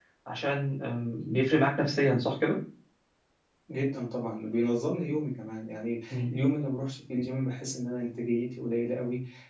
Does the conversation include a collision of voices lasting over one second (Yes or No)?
No